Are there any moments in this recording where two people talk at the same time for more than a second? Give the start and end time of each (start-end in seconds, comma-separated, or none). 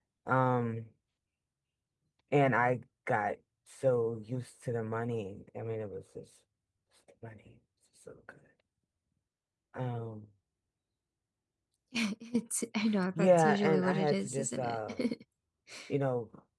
13.2-14.9